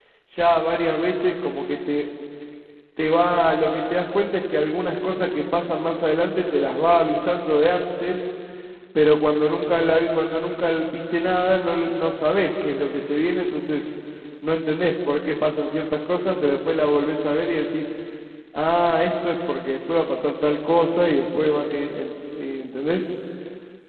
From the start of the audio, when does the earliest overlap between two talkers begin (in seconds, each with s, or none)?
none